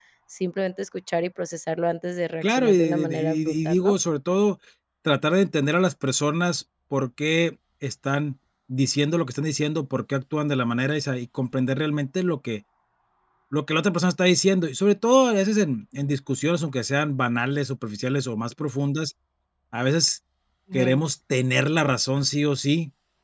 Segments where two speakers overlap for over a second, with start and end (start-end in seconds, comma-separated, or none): 2.4-4.0